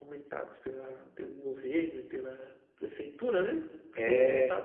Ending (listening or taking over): listening